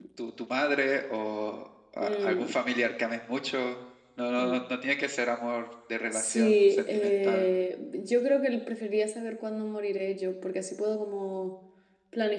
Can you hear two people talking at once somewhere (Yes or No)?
Yes